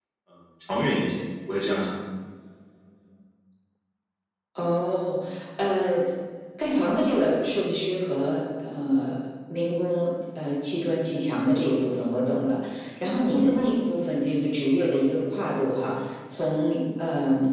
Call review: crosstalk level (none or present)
none